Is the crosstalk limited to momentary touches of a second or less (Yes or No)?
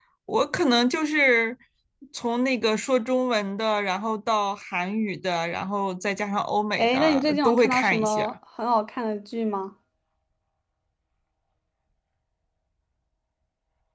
No